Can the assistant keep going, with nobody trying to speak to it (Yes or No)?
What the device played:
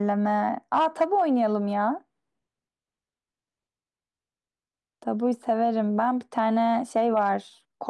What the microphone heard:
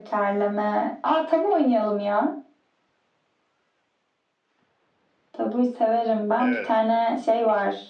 No